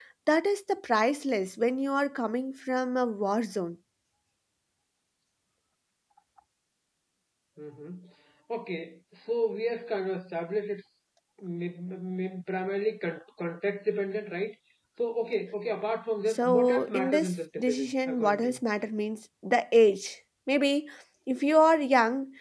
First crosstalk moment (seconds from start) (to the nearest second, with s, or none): 16 s